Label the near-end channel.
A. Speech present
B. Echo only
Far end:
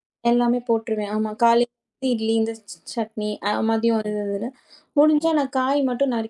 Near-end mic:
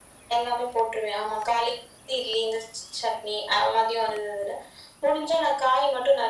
B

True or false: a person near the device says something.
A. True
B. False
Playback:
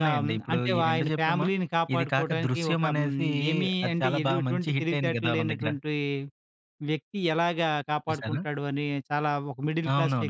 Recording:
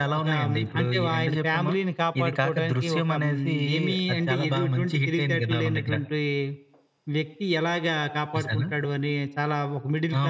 B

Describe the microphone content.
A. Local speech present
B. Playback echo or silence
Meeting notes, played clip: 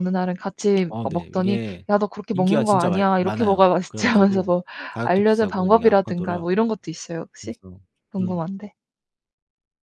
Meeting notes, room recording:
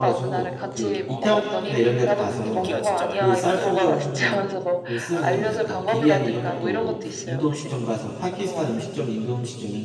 A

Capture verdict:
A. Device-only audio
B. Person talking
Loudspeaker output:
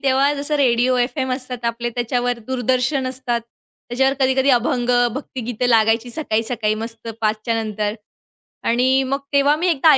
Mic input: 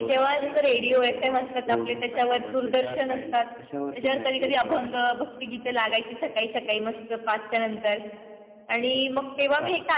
B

